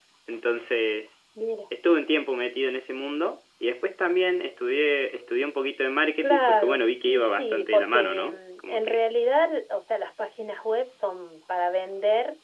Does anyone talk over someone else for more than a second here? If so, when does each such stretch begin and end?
6.2-9.0

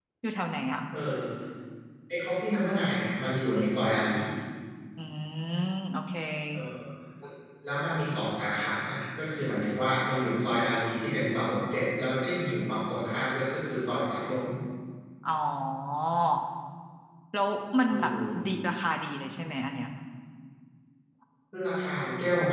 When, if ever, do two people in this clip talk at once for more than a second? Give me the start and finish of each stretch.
none

